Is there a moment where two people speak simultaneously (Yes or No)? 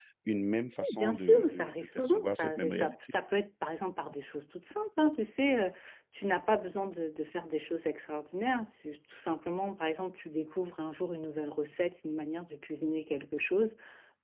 Yes